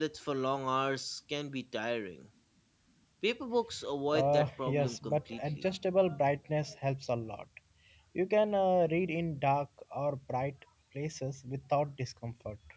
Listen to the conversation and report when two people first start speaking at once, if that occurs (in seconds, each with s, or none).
4.1 s